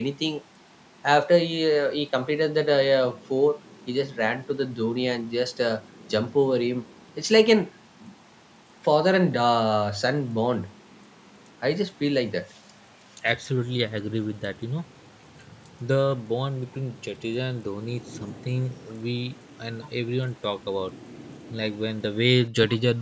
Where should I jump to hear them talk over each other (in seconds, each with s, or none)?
none